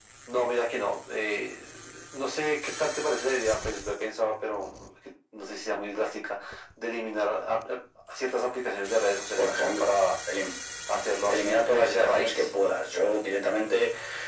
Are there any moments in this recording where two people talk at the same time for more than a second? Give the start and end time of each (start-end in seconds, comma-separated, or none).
11.3-12.5